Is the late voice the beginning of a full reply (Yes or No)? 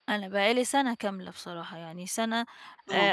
No